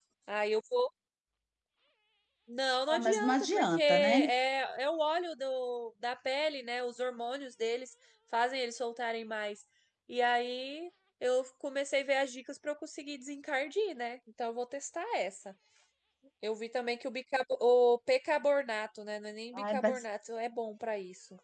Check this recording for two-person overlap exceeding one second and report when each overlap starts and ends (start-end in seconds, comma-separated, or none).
2.9-4.2